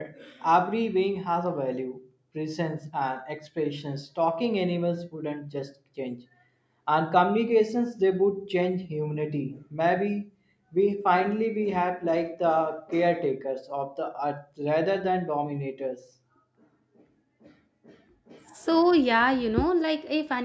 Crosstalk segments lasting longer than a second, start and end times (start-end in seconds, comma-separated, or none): none